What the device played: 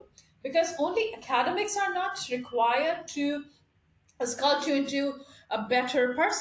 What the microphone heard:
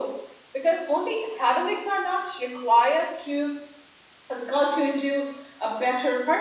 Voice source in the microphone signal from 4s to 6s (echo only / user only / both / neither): echo only